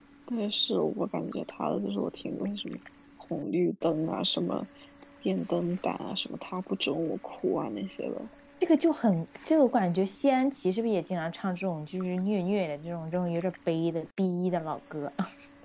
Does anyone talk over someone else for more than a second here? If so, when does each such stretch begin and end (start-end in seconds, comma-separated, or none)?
none